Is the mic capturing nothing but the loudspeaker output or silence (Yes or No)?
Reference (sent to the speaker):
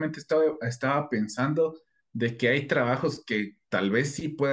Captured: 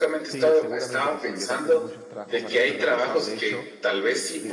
No